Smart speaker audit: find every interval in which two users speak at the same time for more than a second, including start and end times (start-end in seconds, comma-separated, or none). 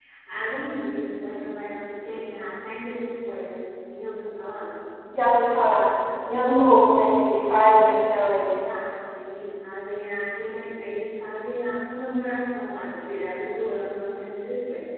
none